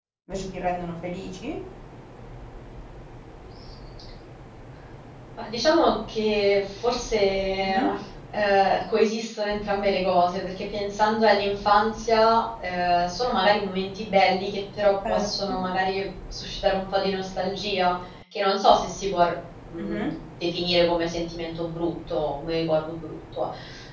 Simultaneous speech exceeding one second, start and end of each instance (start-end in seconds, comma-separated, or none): none